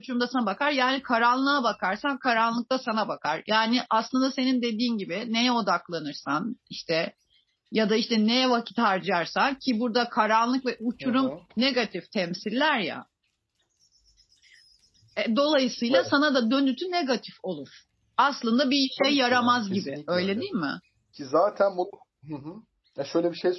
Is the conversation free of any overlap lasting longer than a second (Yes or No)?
No